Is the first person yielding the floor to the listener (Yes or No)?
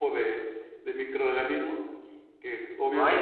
No